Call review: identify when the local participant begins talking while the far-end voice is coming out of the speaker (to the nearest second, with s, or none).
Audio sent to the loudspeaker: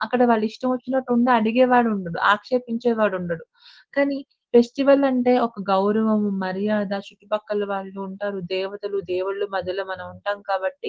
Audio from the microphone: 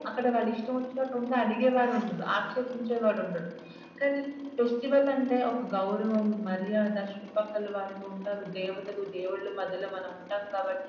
none